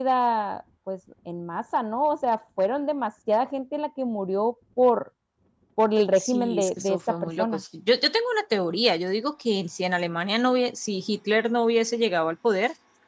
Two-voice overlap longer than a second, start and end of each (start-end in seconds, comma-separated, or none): 6.2-7.6